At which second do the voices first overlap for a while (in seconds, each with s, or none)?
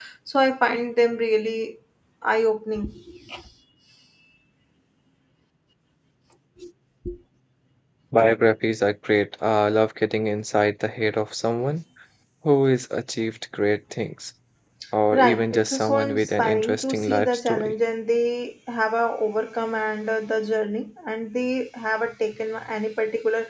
15.2 s